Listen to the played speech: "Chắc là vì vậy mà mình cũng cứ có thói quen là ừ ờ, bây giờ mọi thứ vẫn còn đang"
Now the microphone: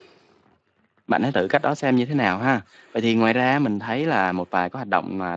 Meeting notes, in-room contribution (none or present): present